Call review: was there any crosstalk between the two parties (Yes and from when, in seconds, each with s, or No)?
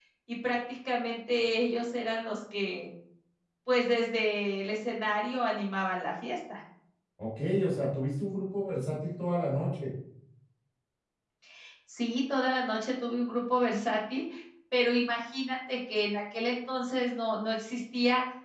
No